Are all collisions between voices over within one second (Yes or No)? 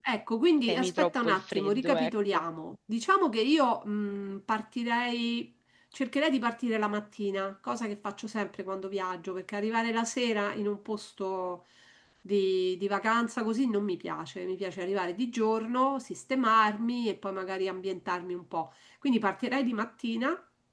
No